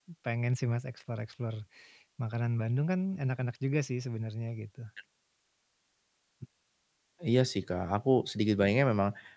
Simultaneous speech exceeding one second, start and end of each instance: none

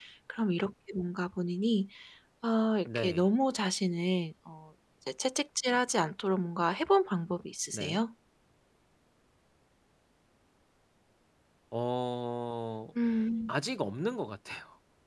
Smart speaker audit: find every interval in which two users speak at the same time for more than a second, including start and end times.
none

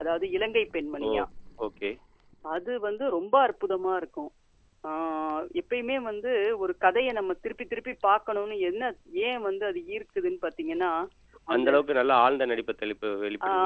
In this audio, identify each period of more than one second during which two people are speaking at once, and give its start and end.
none

